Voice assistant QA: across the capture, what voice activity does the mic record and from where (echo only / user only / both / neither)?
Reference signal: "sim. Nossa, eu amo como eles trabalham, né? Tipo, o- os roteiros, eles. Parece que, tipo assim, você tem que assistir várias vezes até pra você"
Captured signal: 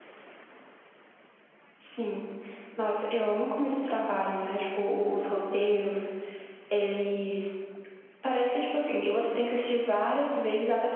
echo only